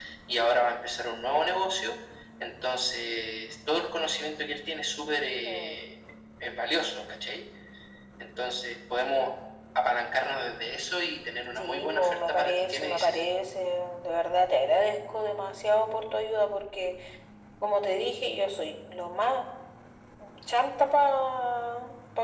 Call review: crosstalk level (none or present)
present